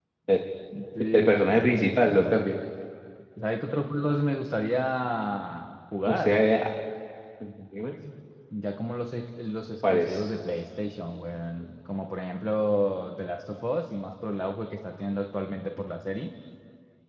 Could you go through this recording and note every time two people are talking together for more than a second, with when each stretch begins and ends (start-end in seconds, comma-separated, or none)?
1.1-2.4